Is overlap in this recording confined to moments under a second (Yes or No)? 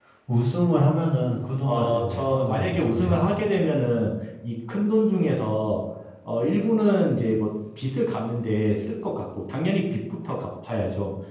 No